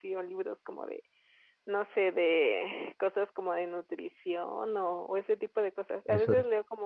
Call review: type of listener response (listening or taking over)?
listening